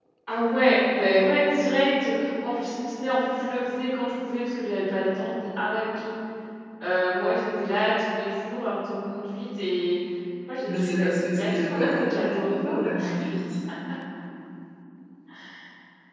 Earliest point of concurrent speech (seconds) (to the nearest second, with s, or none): 11 s